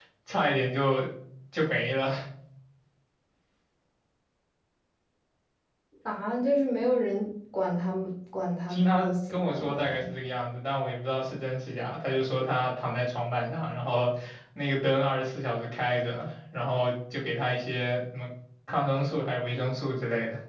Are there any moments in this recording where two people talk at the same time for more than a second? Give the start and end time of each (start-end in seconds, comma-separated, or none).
8.7-10.0